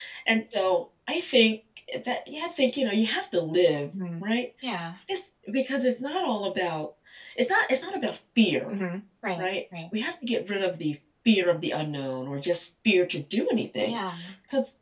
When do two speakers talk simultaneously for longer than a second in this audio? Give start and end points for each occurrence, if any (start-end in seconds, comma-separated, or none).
none